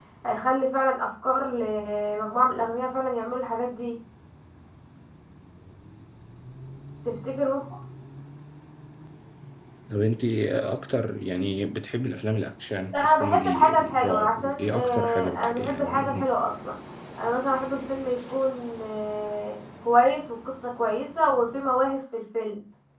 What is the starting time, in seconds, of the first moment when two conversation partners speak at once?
13 s

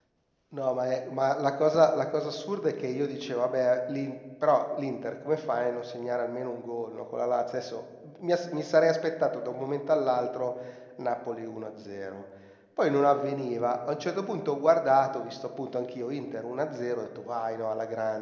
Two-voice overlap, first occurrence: none

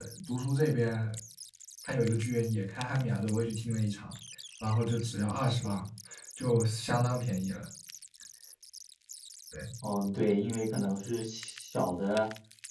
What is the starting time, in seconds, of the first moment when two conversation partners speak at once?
none

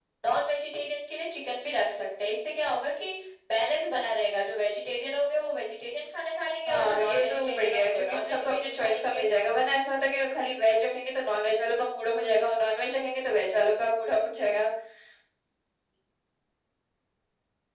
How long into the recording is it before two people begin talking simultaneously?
7 s

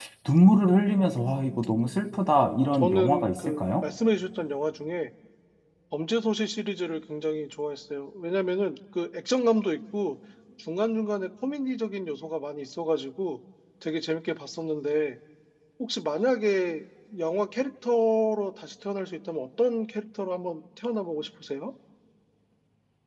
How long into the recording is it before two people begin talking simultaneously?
2 s

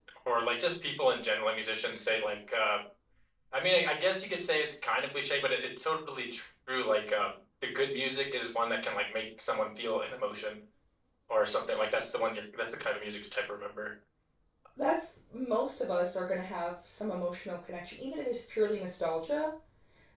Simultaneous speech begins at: none

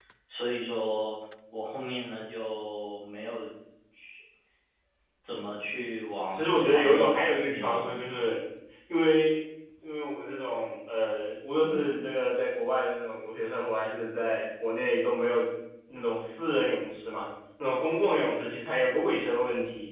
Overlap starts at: 6 s

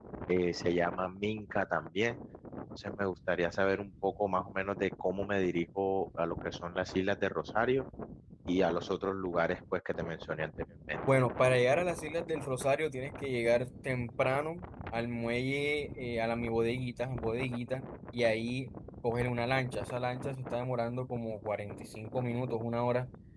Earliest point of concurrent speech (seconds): none

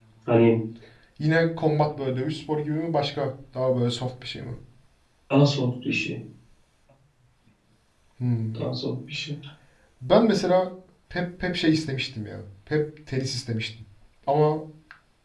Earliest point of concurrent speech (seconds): none

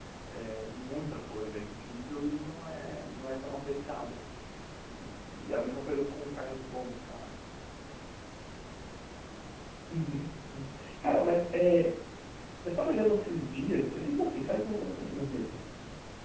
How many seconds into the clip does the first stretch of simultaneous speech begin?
none

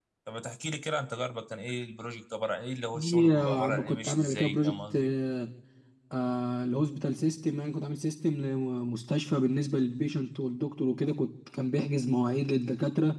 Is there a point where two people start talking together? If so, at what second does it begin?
3 s

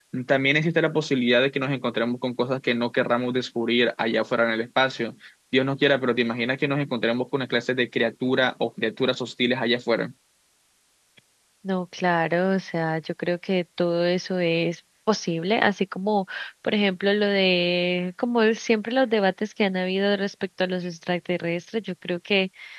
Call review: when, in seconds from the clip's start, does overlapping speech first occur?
none

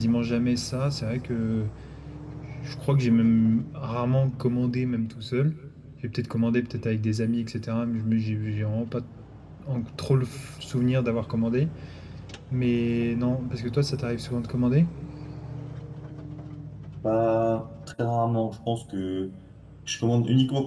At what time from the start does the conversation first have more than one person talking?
none

